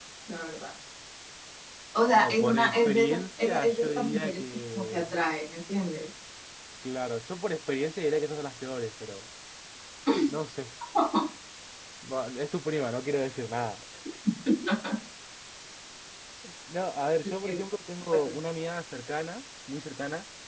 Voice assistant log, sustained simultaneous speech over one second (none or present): present